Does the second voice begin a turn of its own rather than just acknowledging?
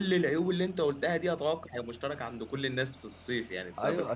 Yes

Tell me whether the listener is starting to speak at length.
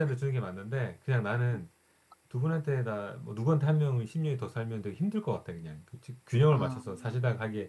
No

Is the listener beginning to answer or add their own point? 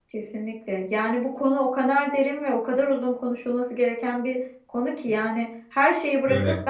No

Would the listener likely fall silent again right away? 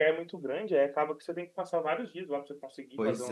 No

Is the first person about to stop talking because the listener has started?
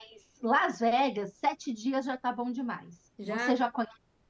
No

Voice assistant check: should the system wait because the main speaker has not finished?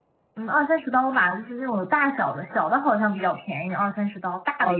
No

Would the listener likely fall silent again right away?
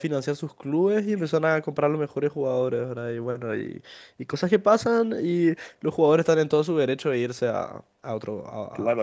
No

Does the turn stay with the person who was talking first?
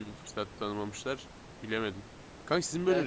Yes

